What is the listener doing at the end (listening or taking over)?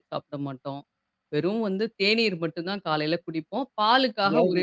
listening